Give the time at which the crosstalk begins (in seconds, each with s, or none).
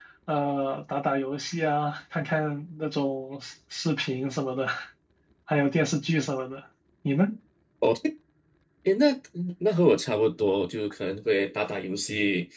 none